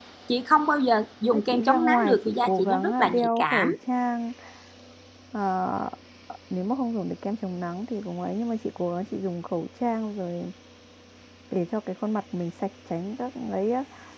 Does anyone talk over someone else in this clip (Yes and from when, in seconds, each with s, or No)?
Yes, from 1.3 s